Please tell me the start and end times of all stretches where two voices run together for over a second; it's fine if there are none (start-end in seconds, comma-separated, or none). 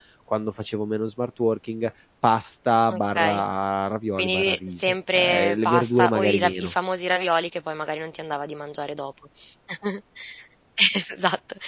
4.2-6.7